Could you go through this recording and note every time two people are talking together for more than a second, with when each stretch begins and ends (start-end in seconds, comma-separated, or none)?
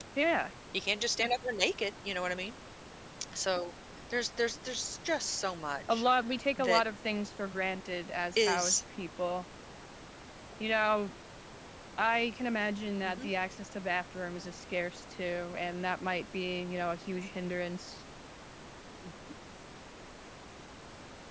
none